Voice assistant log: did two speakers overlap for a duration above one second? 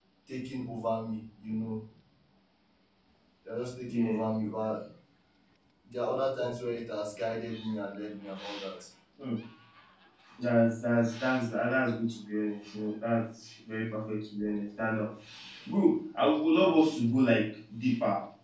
No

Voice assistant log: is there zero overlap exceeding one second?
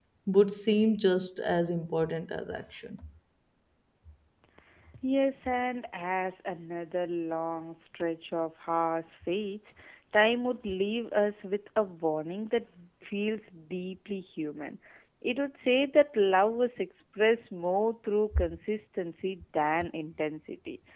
Yes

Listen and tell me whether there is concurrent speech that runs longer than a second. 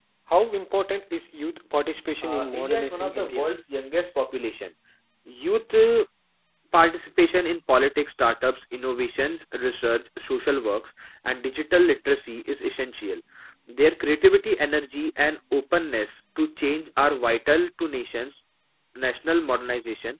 Yes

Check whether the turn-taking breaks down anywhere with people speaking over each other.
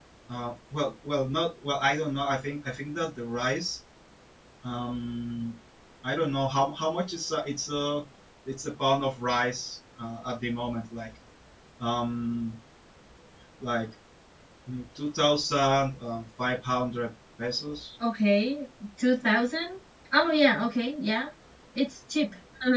No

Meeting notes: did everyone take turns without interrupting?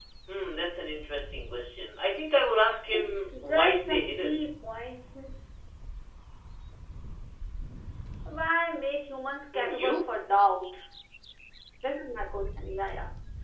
No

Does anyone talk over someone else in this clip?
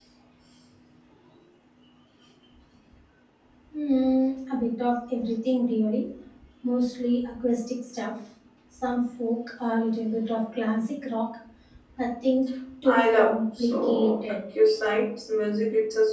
Yes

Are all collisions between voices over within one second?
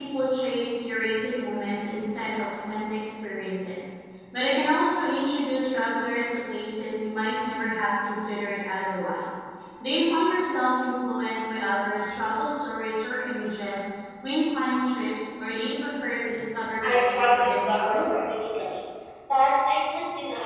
No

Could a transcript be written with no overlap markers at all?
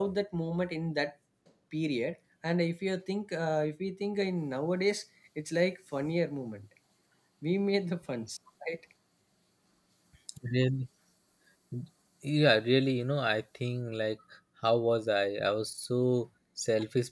Yes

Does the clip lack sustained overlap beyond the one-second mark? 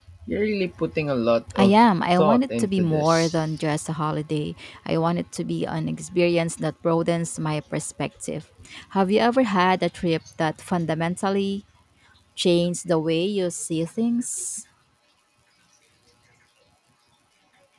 No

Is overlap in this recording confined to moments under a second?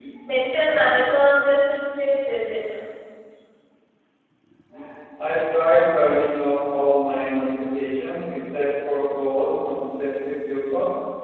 Yes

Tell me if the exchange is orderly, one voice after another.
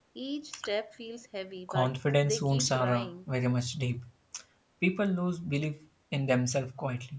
No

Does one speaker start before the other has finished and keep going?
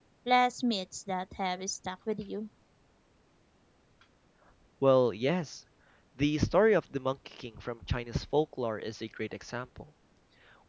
No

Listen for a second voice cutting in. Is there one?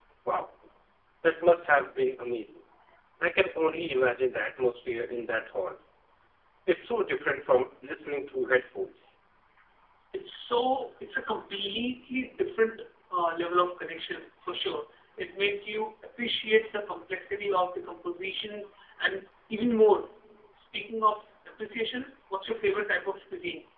No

